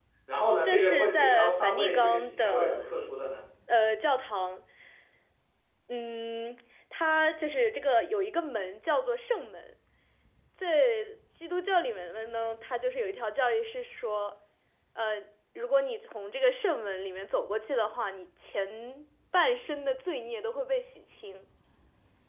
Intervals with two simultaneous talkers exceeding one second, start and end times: 0.6-2.9

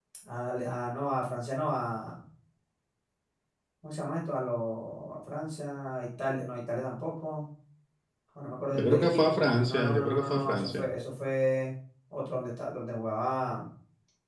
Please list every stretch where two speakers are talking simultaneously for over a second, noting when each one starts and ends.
8.7-10.8

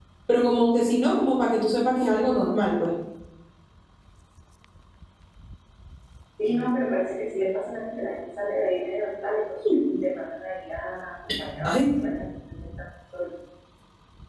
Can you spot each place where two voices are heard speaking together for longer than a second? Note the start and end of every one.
none

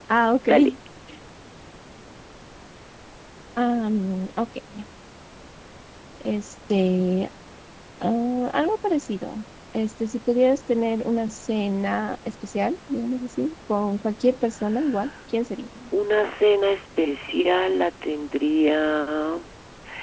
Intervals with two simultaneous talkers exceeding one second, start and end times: none

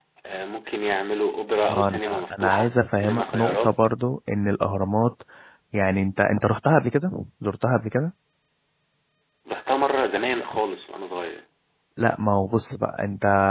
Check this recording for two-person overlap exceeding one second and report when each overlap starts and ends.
1.7-3.8

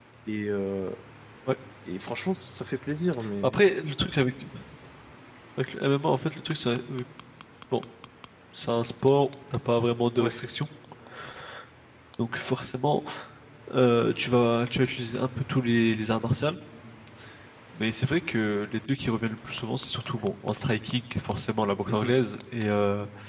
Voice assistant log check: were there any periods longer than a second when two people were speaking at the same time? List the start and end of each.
none

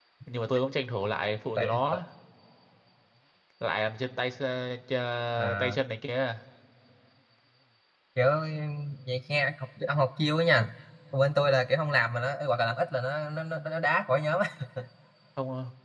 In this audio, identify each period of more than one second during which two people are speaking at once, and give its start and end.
none

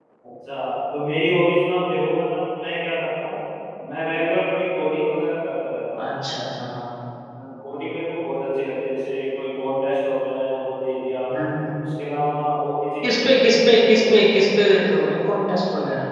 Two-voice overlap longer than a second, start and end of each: 13.0-14.8

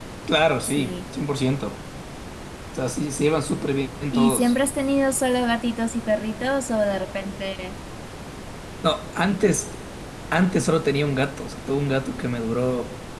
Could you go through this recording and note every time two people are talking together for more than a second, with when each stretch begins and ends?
none

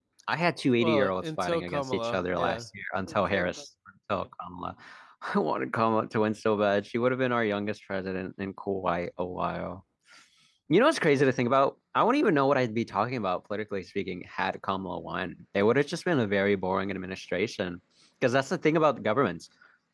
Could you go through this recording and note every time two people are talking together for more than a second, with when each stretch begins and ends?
0.8-2.6

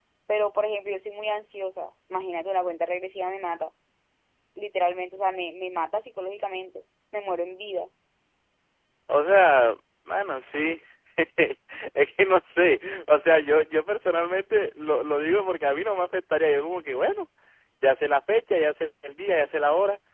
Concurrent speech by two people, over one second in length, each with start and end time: none

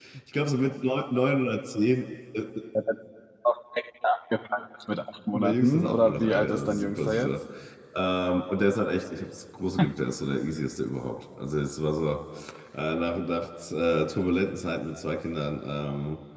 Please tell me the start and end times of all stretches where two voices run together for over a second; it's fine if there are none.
5.3-7.3

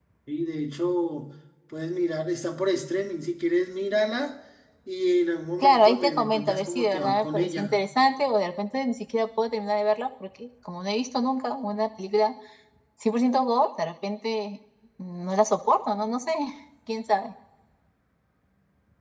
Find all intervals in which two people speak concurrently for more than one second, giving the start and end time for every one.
5.6-7.8

